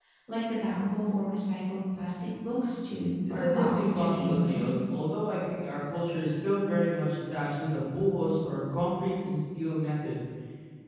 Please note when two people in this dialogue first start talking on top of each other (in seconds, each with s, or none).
3.2 s